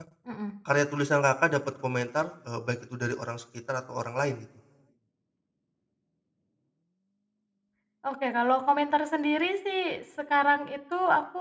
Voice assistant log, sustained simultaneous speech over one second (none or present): none